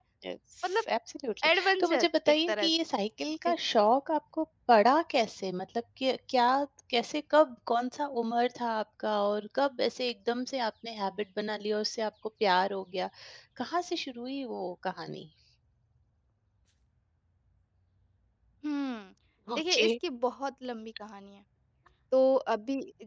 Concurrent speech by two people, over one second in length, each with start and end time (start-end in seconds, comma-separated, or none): 1.5-2.7